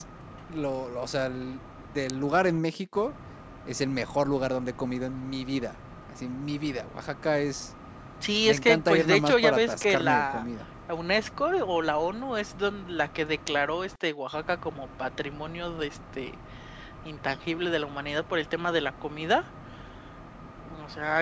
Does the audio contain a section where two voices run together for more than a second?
Yes, from 8.4 s

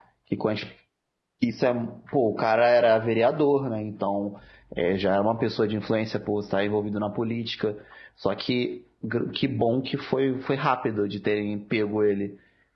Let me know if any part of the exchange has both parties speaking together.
No

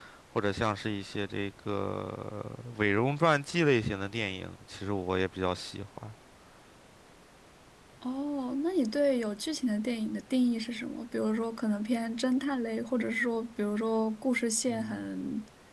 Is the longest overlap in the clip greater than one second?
No

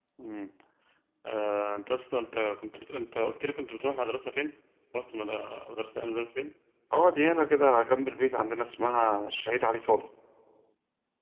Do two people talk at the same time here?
No

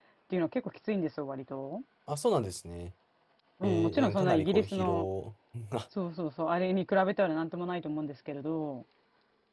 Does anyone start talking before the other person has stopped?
Yes, from 3.6 s

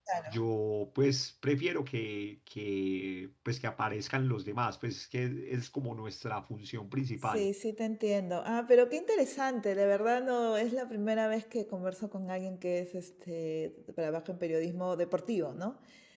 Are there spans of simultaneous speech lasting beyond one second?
No

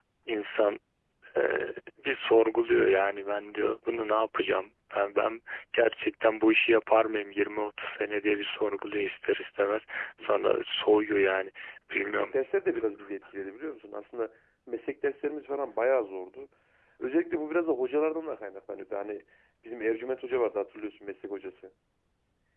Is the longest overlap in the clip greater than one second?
No

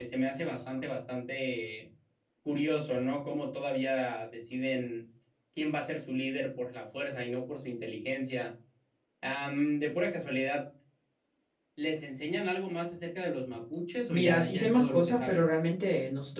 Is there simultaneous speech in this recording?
Yes, from 14.1 s

